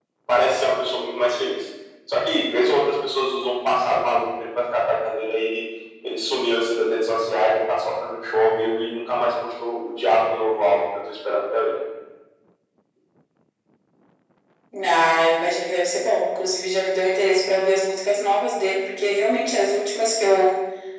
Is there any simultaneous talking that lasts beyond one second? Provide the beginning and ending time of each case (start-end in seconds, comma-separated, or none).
none